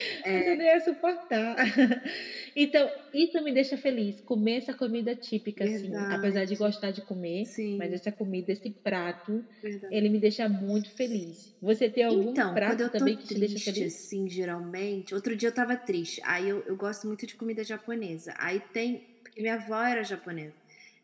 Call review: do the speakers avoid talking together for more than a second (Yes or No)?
No